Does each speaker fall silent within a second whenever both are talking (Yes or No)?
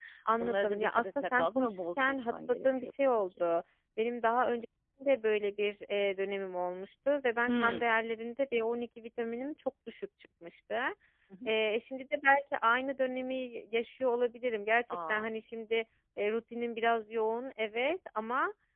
No